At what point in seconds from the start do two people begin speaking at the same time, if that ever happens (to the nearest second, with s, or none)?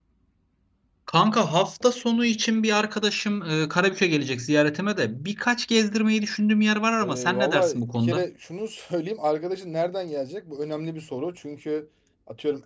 7 s